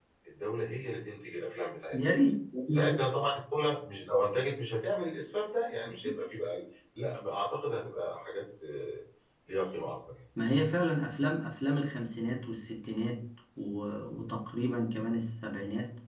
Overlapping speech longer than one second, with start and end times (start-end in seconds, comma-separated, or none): none